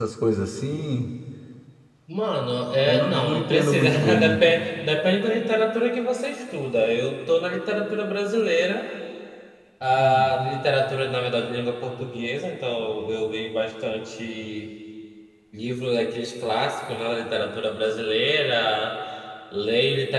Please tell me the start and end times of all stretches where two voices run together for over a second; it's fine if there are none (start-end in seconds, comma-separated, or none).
2.9-4.4